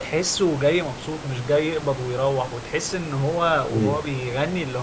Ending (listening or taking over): listening